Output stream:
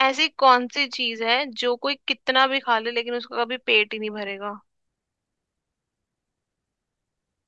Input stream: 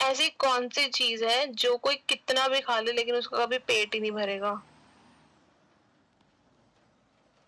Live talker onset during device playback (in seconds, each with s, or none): none